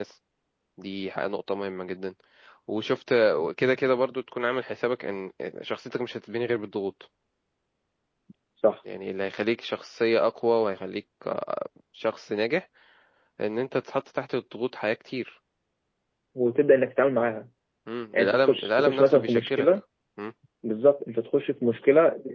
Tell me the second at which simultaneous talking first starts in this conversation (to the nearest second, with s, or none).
18 s